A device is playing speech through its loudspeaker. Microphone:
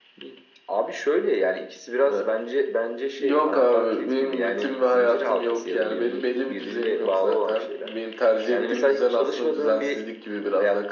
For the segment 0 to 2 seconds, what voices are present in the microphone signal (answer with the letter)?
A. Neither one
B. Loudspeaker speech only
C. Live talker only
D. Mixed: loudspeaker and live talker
B